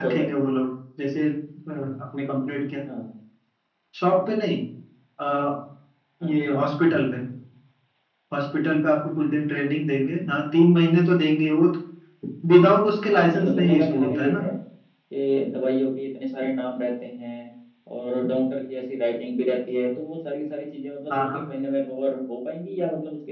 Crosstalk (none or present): present